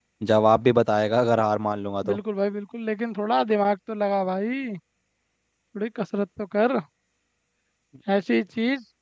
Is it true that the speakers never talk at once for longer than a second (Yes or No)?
Yes